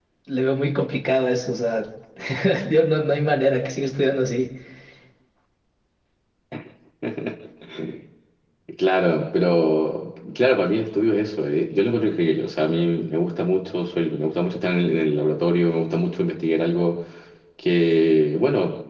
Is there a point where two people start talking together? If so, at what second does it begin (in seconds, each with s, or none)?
none